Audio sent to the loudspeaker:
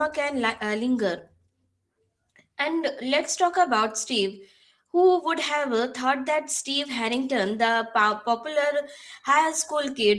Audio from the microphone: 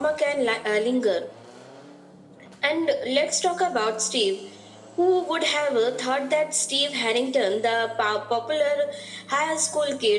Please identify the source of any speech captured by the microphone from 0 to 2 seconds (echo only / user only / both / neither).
echo only